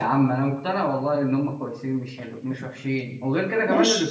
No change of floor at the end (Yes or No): No